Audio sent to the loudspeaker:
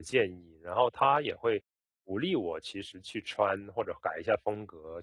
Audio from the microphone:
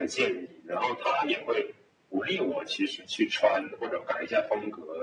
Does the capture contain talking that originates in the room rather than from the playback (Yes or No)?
No